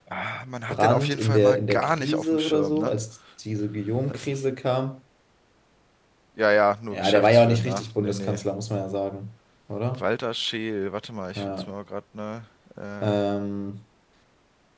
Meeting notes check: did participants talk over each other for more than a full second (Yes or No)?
Yes